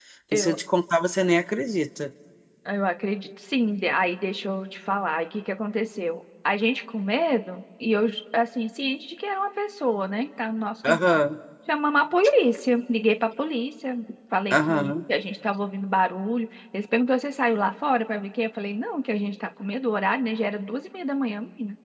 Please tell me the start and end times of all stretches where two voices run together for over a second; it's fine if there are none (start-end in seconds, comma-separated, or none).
none